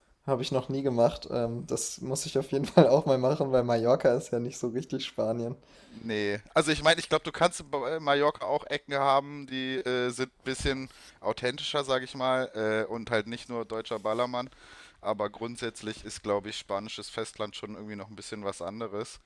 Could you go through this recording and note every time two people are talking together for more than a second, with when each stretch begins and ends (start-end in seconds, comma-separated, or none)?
none